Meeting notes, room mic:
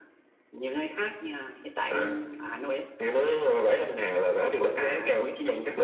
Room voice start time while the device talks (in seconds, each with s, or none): none